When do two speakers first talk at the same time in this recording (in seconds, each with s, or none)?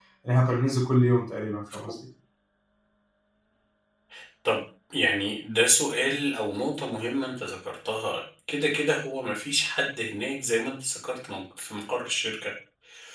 none